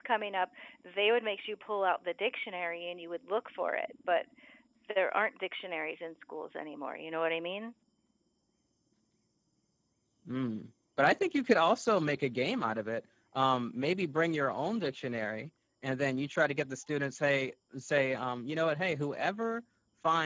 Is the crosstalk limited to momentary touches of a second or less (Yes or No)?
Yes